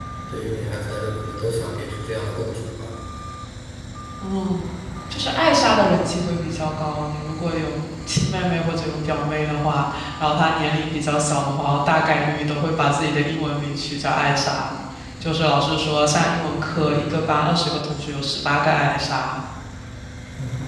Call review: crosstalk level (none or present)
none